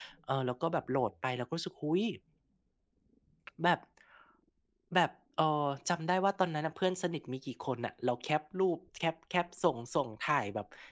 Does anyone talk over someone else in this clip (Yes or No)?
No